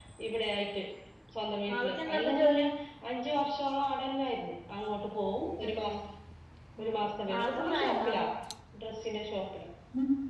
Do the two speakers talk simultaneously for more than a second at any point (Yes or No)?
Yes